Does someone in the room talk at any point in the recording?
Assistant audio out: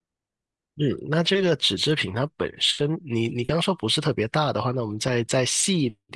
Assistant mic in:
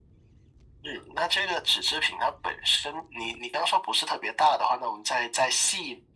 No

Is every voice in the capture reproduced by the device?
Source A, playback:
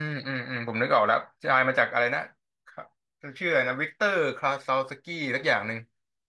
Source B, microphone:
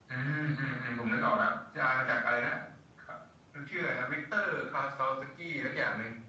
Yes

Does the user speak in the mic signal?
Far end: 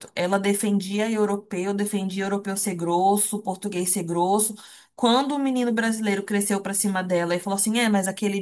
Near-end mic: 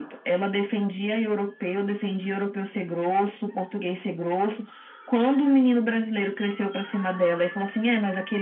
No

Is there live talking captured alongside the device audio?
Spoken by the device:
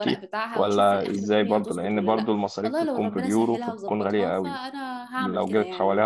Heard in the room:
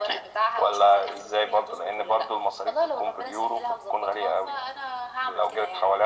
No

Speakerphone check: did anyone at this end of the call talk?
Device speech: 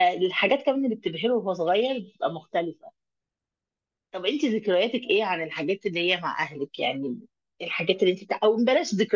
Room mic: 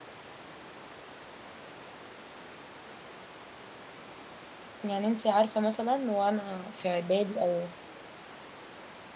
Yes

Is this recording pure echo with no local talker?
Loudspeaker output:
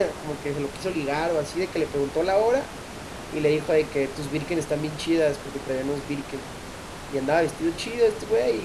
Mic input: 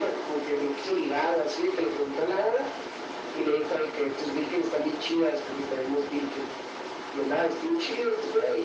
Yes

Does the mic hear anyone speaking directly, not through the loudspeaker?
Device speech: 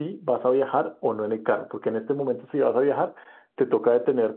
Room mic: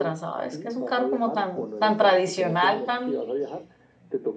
Yes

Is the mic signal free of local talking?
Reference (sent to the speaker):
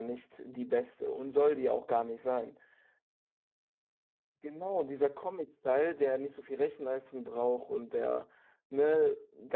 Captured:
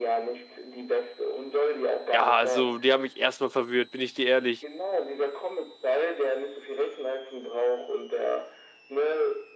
No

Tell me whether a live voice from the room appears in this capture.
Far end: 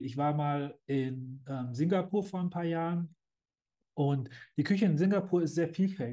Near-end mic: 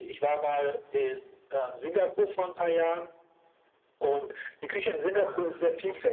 Yes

